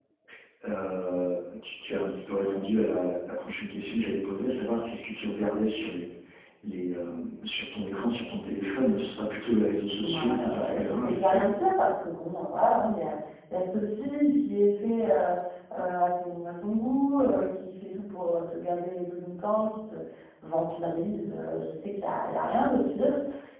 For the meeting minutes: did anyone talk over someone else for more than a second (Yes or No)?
Yes